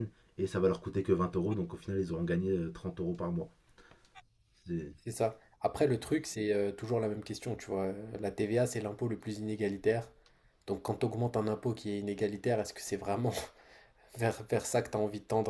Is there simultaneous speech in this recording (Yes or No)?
No